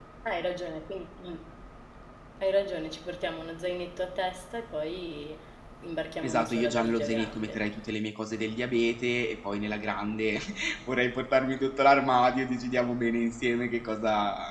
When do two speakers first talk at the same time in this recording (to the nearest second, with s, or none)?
6 s